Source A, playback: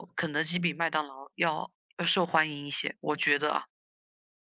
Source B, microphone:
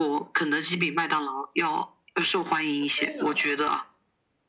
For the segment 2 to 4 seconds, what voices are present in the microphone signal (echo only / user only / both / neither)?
both